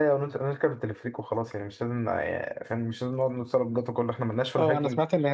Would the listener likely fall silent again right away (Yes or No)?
No